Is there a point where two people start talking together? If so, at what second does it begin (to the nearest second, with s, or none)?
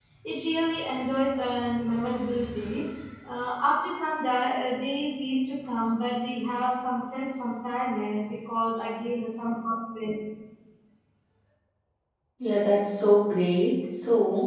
none